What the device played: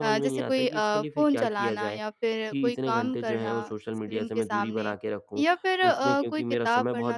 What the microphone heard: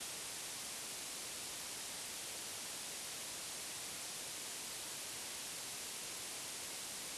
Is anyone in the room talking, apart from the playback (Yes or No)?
No